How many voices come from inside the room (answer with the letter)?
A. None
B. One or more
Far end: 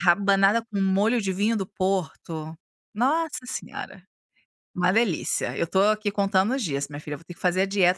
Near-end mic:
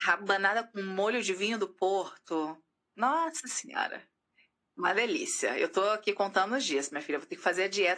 A